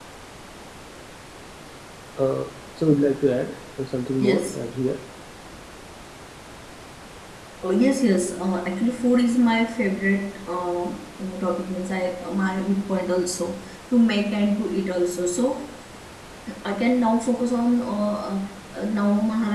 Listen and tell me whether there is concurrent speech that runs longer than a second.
No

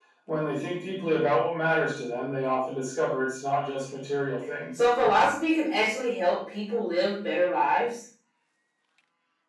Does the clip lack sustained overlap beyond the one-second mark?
Yes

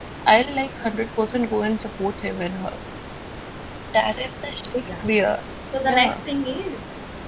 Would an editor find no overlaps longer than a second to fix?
Yes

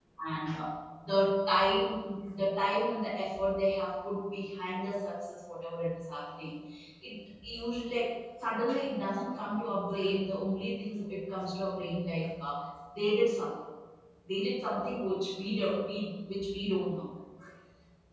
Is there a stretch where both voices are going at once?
No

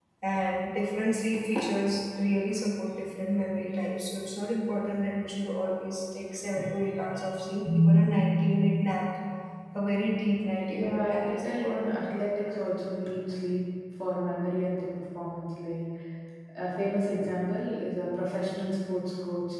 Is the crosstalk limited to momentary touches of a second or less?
No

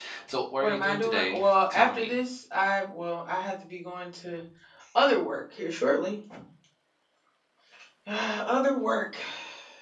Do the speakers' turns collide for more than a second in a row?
Yes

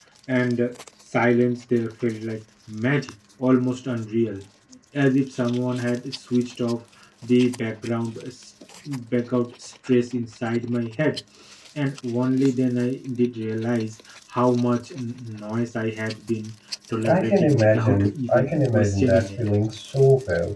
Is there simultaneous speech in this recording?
Yes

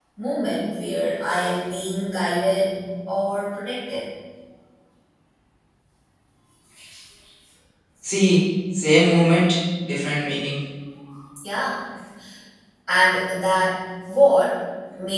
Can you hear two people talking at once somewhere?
No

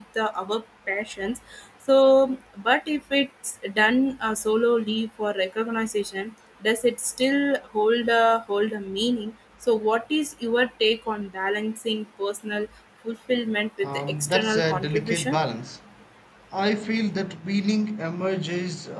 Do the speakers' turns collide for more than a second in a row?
Yes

